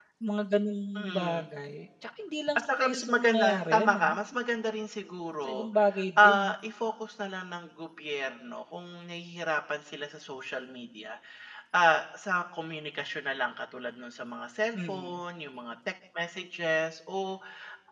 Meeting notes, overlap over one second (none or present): present